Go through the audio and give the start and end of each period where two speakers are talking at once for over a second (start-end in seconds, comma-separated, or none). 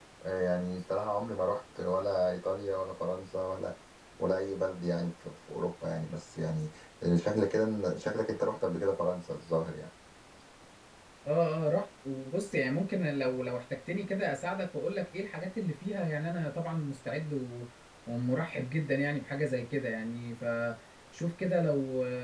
none